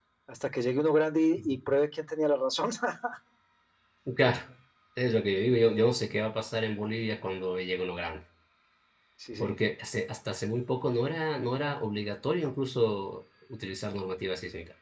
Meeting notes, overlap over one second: none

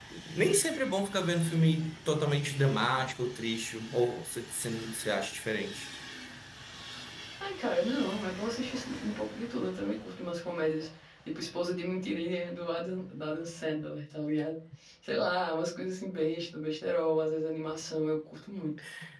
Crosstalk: none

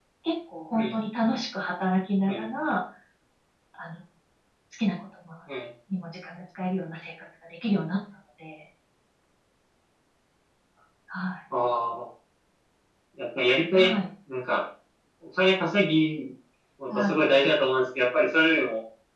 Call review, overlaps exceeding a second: none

